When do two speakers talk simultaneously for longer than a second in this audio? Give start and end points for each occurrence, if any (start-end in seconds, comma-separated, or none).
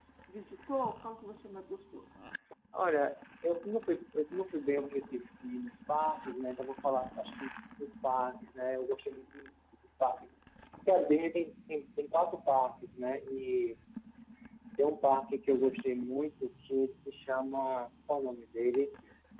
none